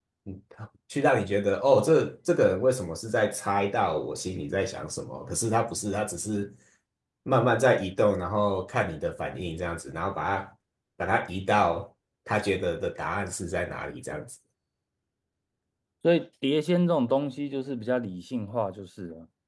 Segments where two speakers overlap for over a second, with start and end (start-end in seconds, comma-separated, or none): none